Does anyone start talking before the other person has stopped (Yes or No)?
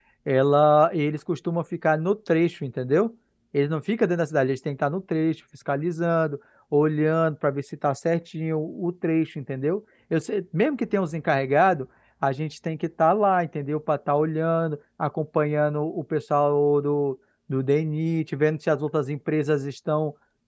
No